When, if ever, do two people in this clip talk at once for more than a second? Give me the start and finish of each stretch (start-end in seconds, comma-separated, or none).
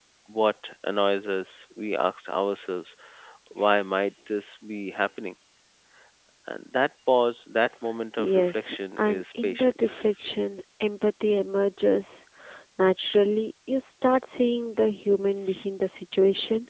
8.2-10.0